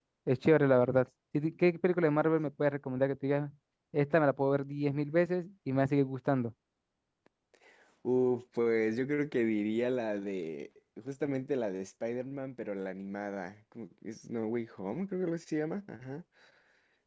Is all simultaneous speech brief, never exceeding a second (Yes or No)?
Yes